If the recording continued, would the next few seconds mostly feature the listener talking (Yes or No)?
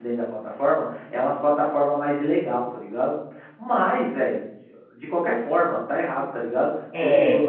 No